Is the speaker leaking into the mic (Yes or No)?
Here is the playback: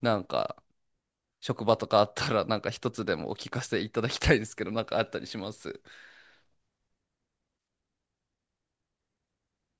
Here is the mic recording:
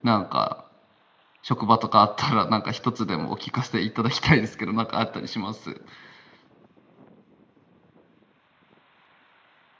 Yes